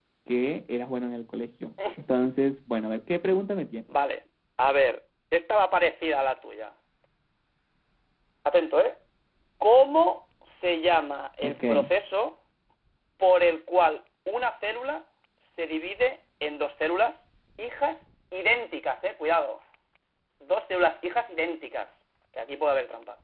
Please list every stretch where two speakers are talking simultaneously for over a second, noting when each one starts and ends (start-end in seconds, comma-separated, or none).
none